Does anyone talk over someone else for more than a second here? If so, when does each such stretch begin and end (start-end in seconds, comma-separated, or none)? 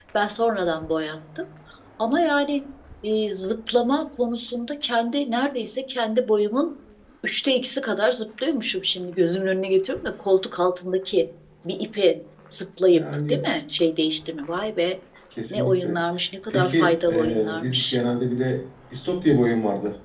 16.5-18.0